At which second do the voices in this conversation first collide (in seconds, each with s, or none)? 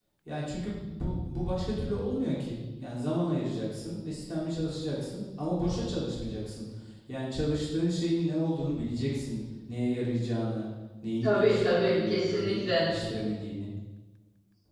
11.2 s